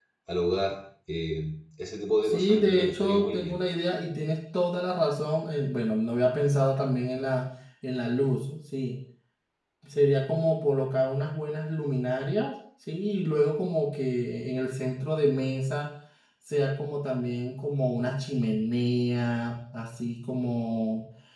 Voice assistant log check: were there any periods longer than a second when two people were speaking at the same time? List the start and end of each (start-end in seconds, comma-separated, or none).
2.2-3.6